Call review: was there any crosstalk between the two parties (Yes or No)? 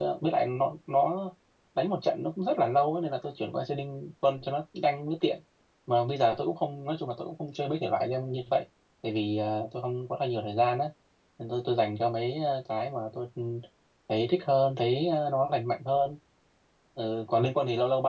No